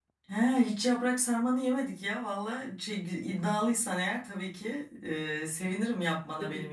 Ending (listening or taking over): taking over